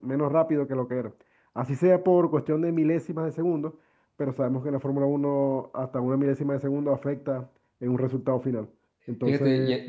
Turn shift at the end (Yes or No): Yes